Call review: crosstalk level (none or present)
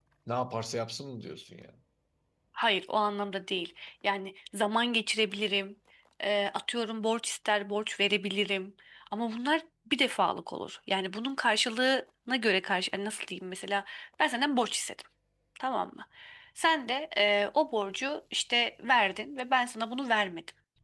none